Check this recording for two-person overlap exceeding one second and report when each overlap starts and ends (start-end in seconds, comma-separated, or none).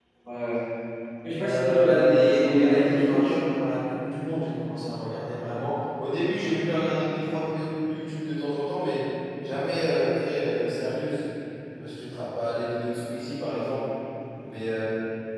1.4-3.4